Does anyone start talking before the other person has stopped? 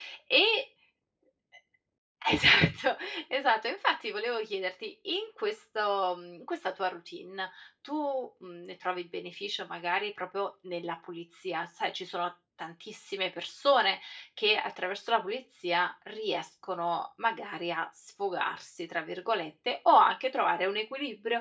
No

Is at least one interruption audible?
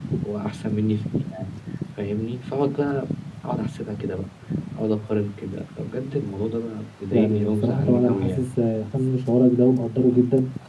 Yes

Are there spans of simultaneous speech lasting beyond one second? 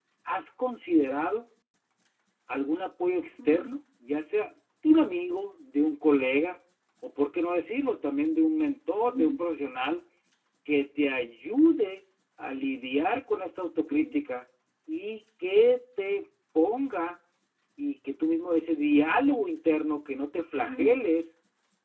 No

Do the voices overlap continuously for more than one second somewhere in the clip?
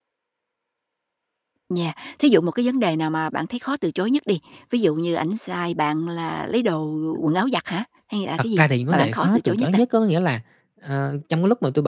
Yes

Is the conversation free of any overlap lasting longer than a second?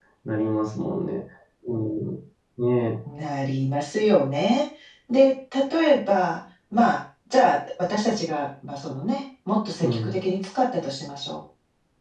Yes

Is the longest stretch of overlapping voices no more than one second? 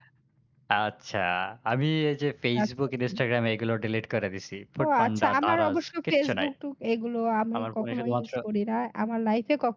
No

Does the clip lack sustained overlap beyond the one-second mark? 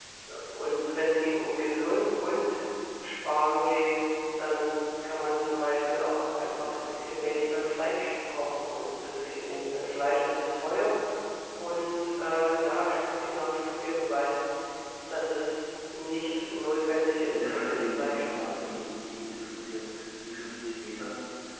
No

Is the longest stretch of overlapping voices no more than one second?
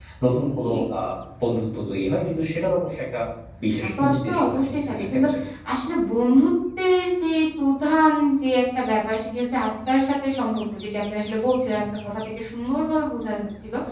No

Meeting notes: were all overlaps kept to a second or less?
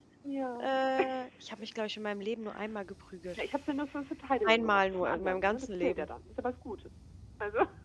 No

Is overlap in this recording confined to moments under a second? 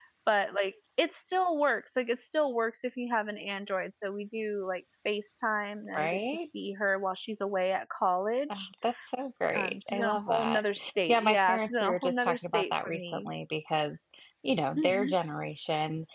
No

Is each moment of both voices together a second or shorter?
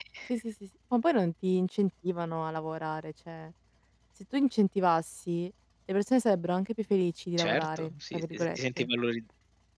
No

